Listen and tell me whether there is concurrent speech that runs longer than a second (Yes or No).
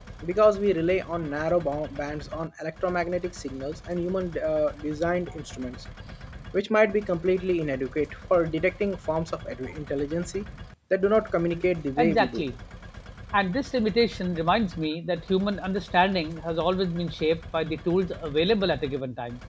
No